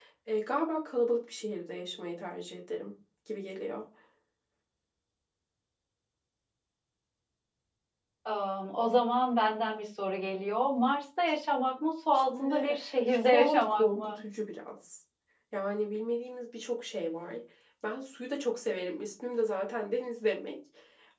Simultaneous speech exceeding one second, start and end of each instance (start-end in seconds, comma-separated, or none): 12.1-14.2